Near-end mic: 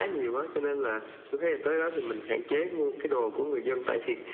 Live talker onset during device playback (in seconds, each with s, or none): none